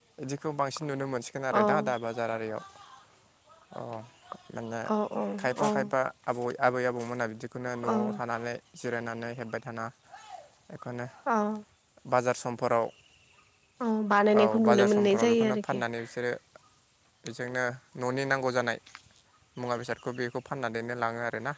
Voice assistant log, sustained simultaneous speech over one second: present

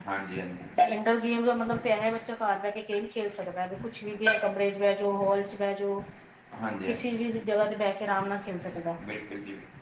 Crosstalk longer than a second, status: none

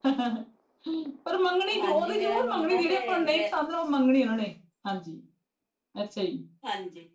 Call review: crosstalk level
present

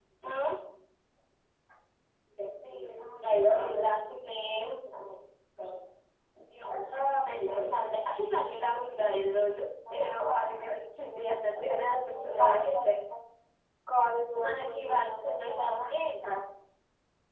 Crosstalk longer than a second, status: present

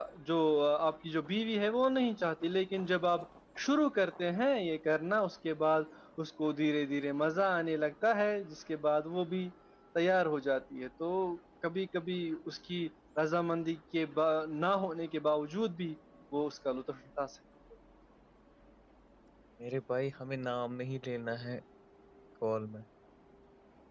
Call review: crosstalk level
none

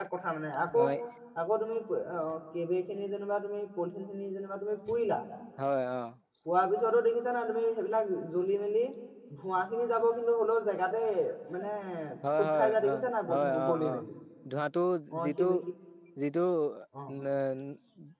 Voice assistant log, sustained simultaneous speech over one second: present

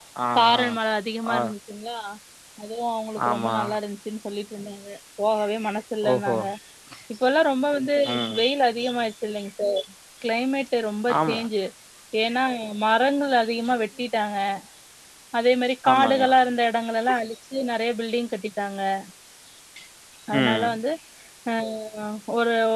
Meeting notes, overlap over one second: none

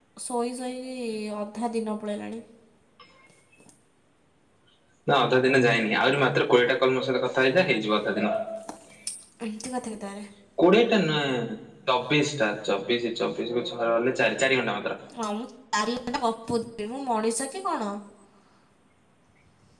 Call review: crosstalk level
none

